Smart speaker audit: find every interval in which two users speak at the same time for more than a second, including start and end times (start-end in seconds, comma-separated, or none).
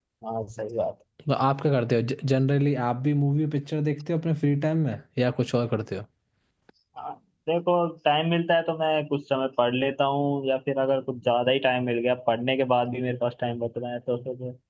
none